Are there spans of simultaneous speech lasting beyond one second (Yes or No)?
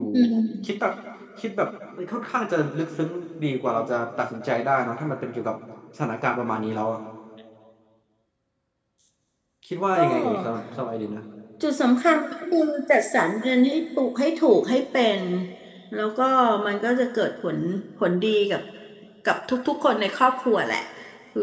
No